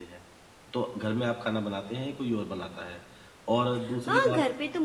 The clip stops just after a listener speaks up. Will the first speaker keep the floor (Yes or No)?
No